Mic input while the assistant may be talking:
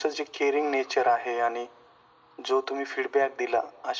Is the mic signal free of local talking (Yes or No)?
Yes